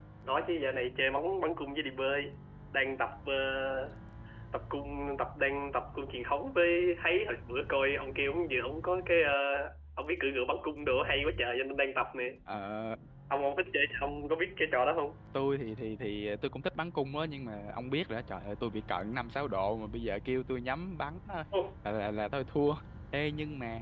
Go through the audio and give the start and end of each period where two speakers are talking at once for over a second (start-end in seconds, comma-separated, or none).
none